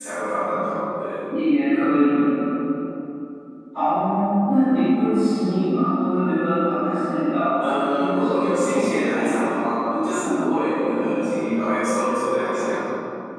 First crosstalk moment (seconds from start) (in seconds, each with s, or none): 7.6 s